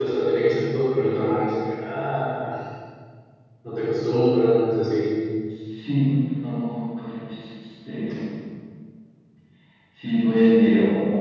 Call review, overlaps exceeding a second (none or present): none